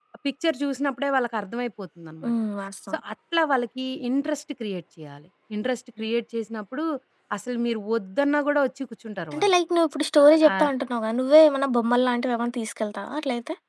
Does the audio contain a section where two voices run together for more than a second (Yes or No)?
No